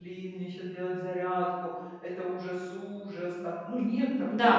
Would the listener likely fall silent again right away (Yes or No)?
No